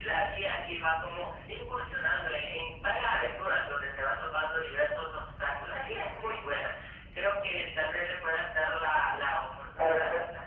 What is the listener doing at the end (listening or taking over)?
taking over